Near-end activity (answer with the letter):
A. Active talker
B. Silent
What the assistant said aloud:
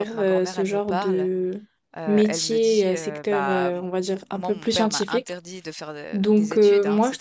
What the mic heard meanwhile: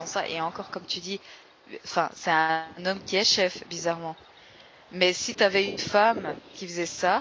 A